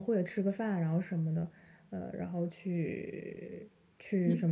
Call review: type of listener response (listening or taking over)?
taking over